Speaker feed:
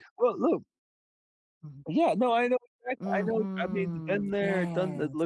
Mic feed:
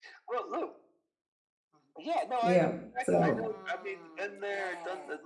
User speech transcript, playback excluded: Yep. So

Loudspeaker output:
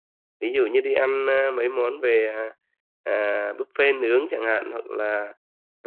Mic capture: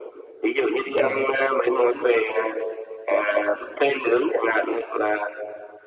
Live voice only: đúng rồi.

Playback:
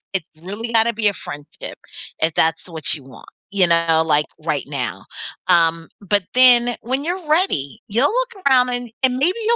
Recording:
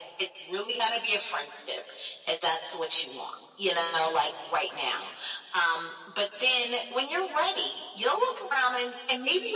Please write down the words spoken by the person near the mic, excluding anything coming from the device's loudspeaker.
none

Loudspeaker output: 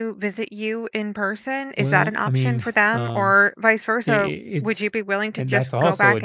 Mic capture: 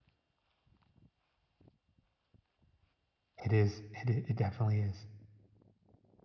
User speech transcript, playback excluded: It is. It i- it definitely is.

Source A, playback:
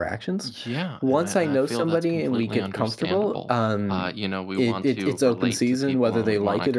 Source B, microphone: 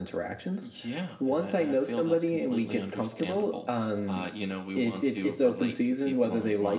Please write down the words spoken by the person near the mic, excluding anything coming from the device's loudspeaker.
none

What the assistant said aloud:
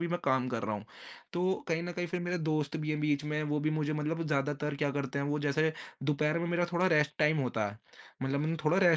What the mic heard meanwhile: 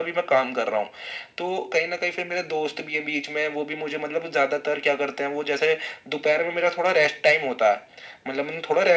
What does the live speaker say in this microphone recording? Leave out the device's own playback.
none

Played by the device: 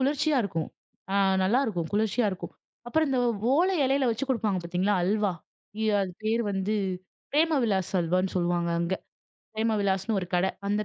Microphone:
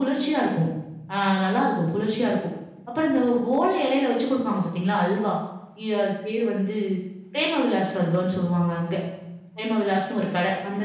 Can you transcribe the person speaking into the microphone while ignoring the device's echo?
none

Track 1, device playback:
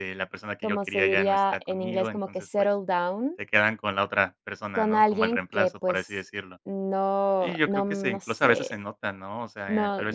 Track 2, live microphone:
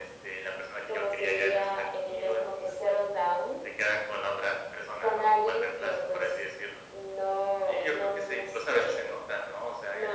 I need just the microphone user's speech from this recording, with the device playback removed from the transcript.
none

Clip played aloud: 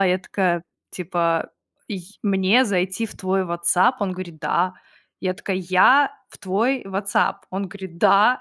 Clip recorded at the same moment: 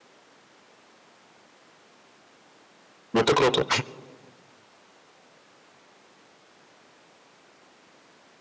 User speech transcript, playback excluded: Это круто.

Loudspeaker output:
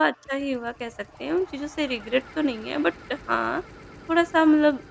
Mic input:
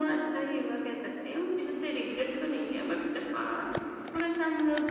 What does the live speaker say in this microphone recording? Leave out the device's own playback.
none

